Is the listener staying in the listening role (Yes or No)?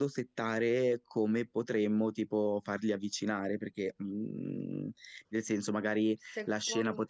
Yes